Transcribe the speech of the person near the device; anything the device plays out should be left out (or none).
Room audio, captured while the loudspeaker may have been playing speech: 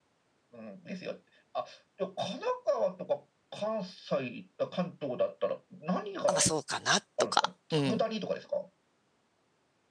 あ、まあそうかな、とか。うん。